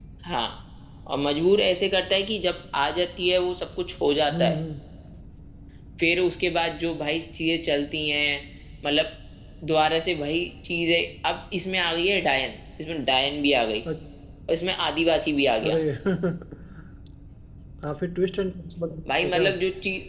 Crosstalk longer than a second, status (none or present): none